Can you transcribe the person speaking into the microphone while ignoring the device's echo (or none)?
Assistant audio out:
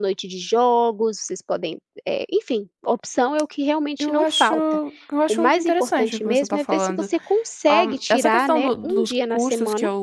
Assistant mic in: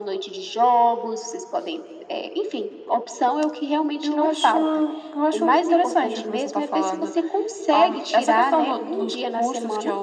none